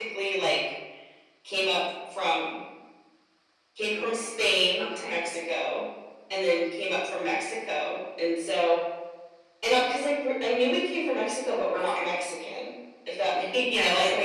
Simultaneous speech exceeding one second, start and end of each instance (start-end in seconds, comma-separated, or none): none